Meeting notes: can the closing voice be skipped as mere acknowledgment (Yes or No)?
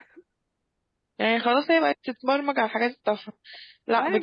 Yes